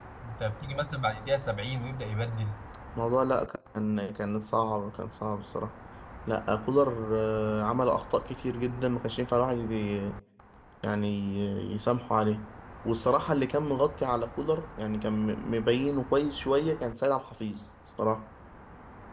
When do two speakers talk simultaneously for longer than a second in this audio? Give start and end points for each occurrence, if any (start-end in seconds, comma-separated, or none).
none